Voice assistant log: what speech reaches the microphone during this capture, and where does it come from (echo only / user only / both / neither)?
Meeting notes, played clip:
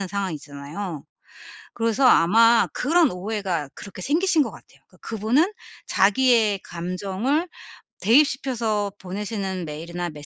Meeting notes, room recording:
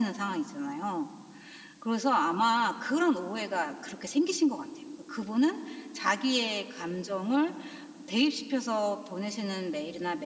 echo only